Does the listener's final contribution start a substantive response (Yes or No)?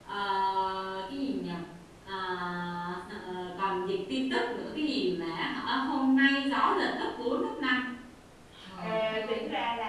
Yes